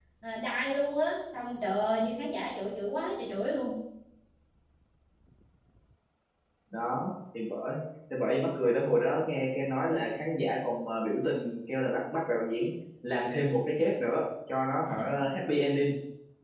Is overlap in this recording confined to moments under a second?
Yes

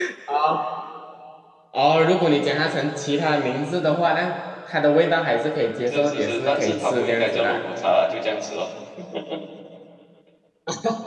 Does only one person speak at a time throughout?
No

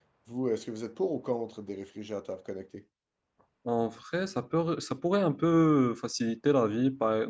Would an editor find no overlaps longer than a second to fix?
Yes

